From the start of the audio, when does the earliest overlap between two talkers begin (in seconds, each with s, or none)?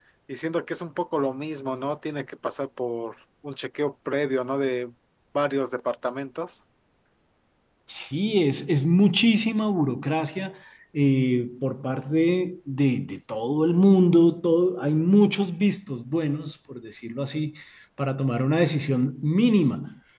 none